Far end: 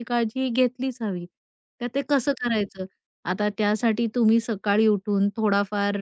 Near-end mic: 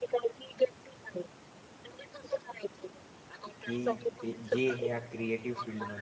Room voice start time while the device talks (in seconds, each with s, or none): 3.6 s